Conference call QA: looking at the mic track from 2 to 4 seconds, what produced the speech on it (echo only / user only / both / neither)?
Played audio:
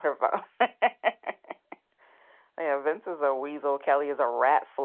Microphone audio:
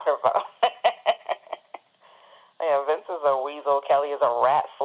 echo only